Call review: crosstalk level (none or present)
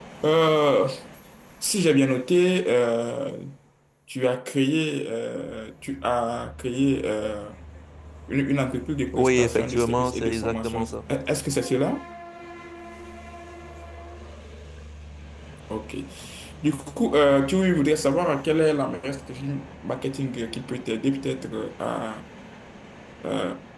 present